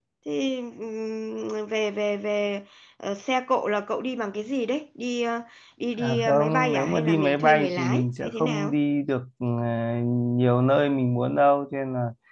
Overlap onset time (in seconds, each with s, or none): 6.0 s